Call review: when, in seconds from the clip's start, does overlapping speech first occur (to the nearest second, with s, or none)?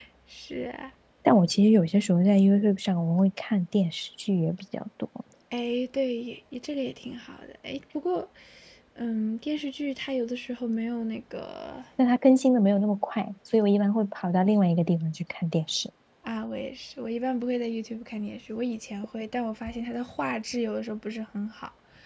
none